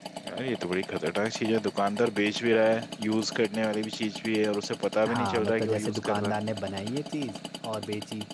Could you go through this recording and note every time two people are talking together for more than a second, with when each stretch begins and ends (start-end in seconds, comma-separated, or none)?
5.1-6.3